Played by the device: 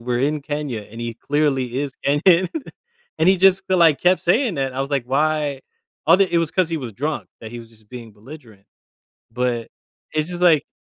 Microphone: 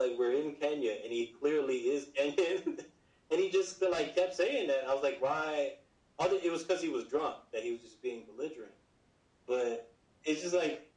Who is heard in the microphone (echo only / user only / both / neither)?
echo only